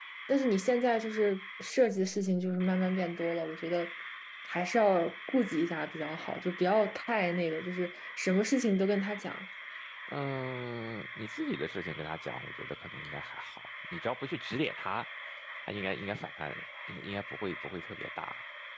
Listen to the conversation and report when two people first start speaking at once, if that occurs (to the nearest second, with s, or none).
none